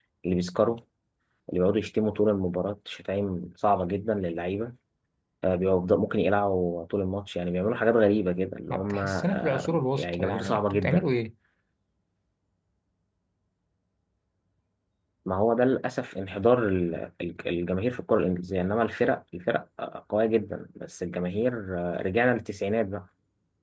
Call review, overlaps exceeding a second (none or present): present